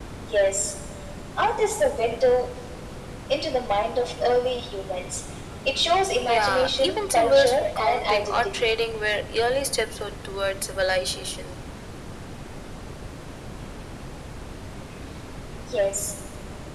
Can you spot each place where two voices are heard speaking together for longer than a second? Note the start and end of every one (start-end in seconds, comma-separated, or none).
6.2-8.7